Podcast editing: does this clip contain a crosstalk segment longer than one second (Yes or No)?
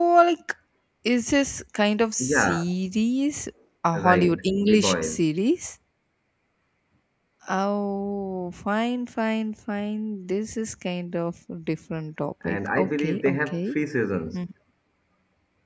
Yes